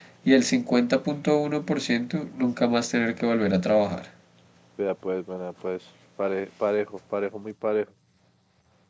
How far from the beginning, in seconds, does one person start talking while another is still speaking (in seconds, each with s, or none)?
none